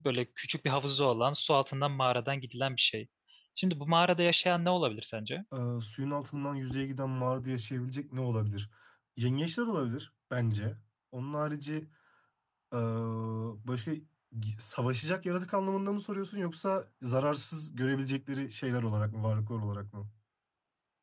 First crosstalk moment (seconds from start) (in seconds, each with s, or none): none